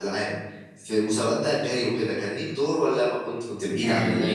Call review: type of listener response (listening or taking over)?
taking over